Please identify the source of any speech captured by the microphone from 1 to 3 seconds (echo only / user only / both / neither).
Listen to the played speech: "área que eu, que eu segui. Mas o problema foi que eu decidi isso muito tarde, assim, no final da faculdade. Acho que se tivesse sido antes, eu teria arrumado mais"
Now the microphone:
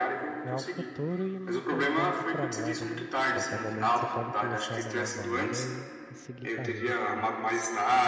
both